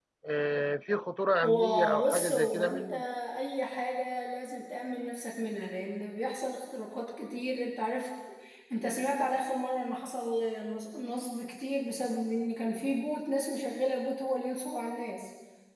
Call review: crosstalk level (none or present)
present